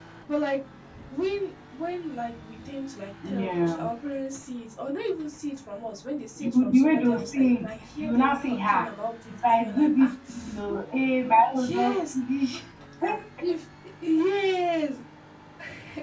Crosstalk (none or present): present